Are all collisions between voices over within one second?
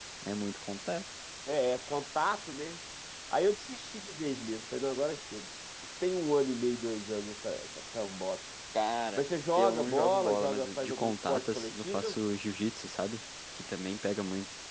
No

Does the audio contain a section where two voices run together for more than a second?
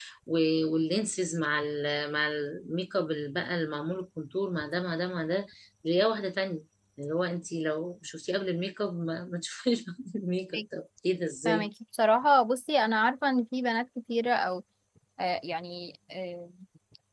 No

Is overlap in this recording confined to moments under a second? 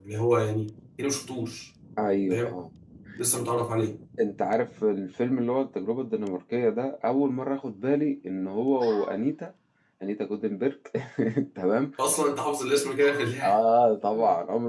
Yes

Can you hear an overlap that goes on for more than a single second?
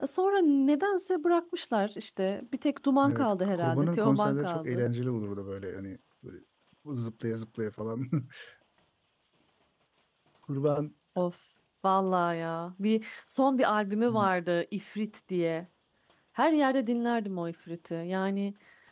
Yes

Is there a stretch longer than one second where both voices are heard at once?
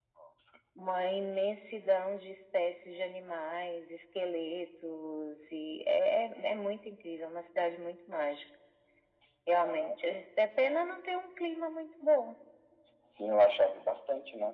No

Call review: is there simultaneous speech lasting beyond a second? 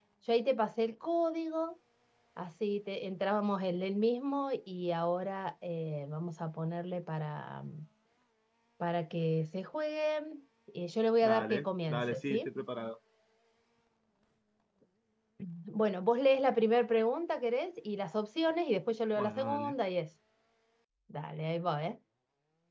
Yes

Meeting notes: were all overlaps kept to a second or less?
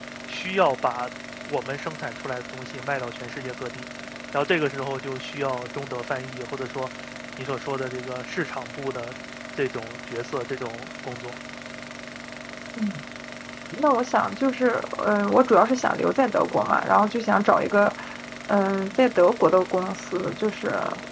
Yes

